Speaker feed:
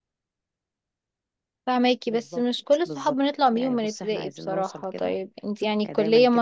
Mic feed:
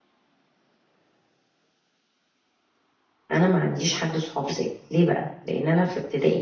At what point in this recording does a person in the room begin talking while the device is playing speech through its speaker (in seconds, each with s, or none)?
3.3 s